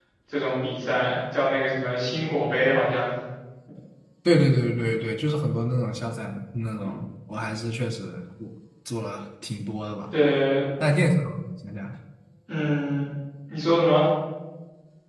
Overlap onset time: none

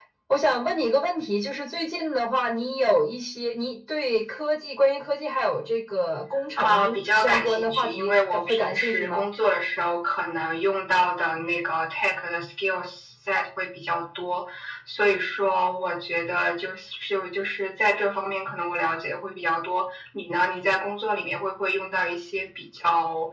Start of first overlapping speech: 7 s

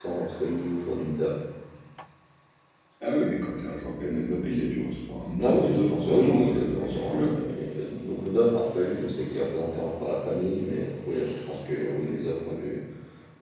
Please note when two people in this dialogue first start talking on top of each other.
5 s

